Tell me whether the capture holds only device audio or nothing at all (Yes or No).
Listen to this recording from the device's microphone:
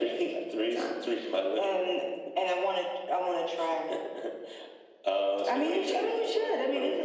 Yes